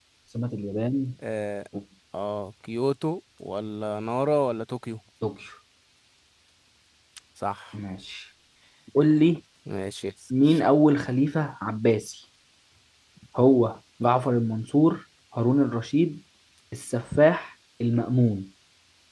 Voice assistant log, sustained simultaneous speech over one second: none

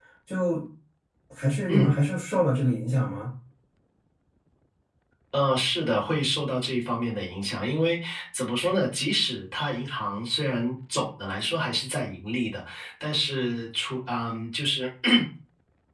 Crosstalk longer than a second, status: none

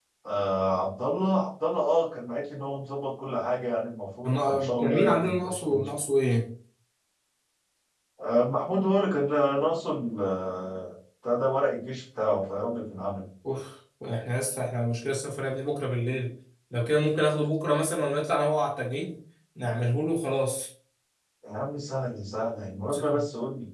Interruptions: present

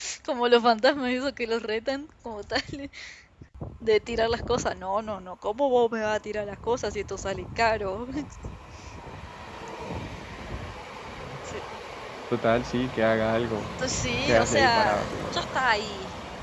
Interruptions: present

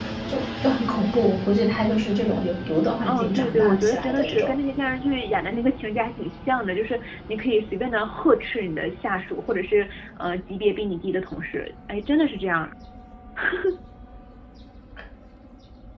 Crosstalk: present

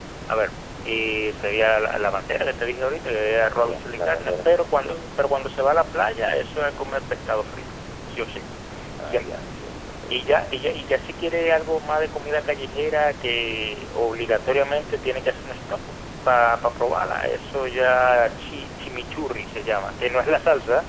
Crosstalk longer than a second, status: present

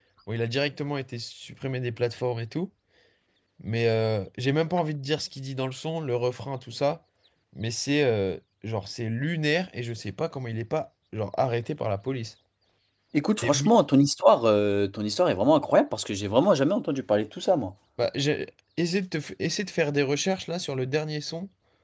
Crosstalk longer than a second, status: none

